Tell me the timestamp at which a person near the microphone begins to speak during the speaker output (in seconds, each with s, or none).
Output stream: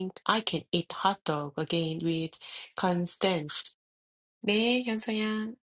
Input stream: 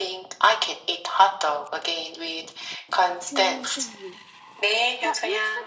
3.2 s